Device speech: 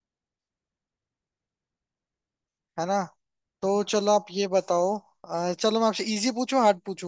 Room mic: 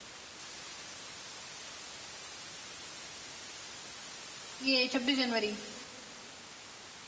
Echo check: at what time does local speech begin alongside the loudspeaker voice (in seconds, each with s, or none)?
4.6 s